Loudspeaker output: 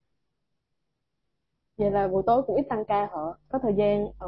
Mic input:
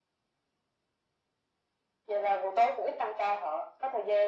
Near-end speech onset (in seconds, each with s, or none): none